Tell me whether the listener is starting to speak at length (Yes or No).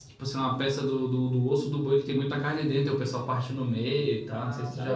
Yes